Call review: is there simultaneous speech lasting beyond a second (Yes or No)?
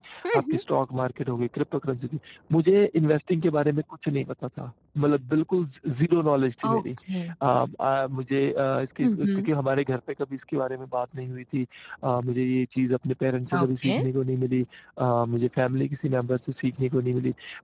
No